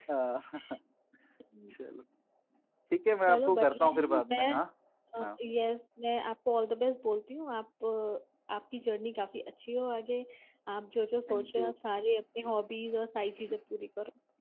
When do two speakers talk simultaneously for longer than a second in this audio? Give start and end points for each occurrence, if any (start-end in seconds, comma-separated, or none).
3.2-4.6